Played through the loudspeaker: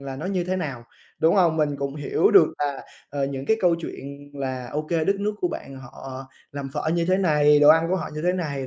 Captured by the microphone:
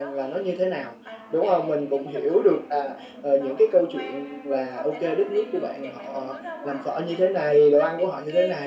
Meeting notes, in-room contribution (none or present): present